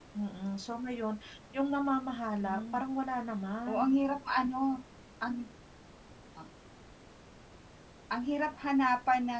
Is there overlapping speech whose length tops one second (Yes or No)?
No